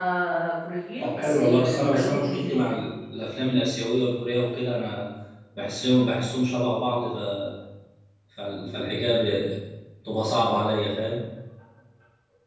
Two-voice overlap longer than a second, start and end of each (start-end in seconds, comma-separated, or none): 1.0-2.8